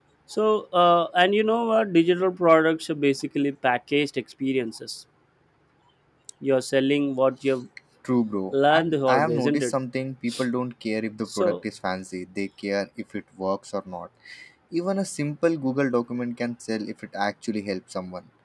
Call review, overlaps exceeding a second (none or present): present